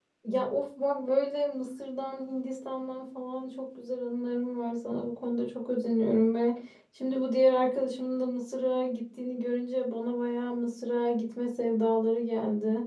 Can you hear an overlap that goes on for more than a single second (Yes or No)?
No